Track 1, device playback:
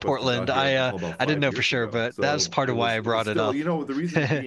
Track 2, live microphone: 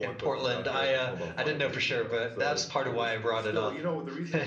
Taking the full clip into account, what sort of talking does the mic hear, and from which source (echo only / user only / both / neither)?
echo only